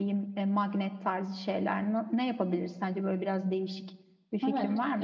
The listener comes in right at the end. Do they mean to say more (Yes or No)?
Yes